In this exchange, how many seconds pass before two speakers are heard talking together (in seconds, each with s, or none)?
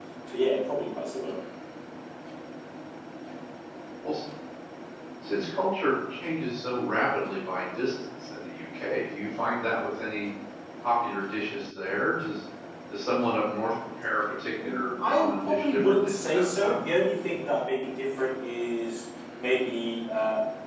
14.6 s